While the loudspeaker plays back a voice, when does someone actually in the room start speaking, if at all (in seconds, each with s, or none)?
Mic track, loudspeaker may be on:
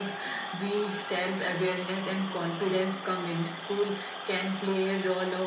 none